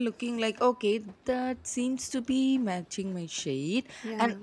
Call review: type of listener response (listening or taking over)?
listening